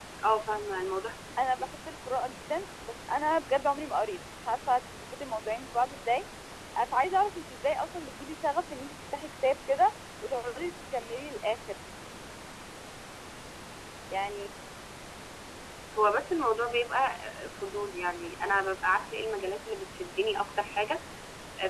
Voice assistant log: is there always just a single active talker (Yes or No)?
Yes